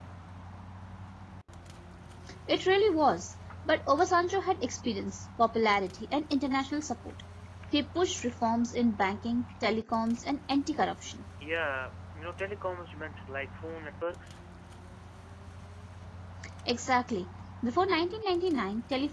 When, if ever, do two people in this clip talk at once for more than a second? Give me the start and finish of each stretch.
none

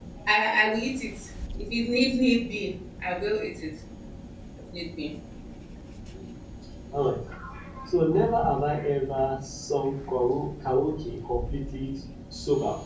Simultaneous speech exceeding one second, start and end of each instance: none

